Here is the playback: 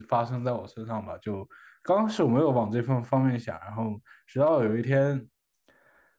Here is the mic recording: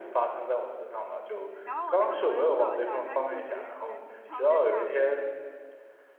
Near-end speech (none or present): present